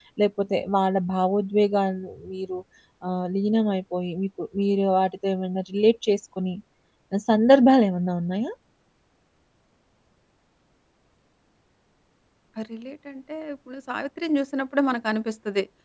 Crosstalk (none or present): none